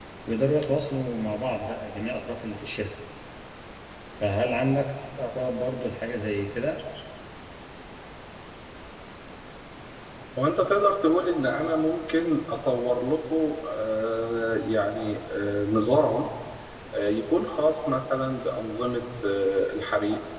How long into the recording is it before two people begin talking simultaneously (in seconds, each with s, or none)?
none